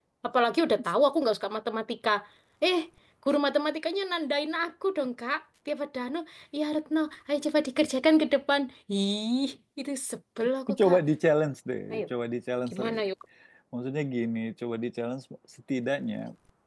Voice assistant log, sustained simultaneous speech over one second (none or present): none